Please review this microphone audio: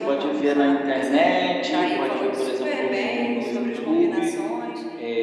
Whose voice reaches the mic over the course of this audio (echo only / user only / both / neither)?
both